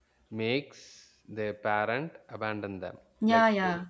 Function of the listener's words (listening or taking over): taking over